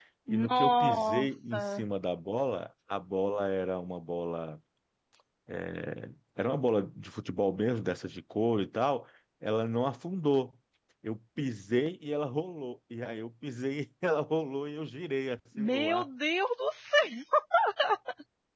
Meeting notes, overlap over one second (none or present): present